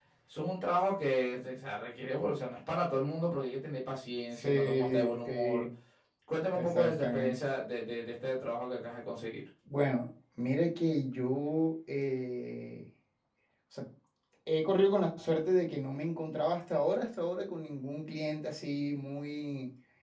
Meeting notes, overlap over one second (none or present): present